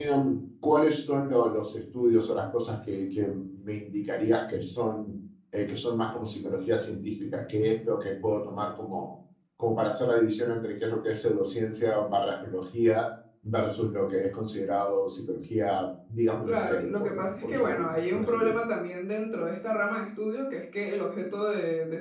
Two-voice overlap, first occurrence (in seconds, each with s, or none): 16.4 s